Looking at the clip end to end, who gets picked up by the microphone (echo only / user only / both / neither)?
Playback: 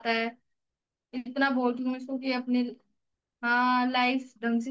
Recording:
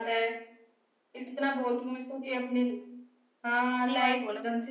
both